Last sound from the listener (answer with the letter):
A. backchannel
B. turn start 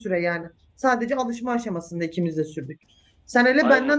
A